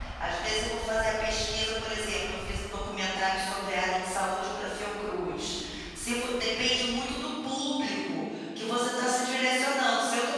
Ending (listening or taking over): listening